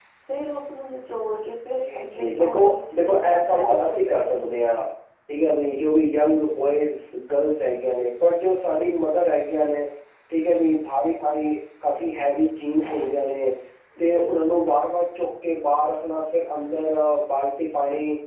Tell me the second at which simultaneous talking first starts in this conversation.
1.8 s

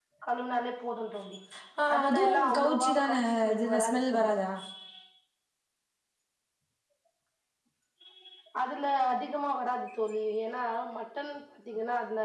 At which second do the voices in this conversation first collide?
1.9 s

